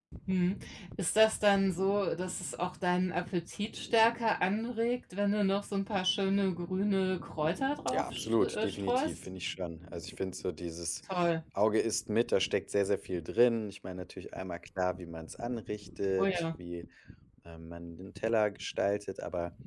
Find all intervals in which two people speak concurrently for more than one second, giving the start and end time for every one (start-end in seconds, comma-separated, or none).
7.9-9.2